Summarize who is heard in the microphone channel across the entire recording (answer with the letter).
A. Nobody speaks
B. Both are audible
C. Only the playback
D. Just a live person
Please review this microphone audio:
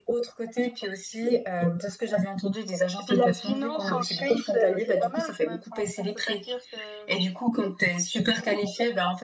C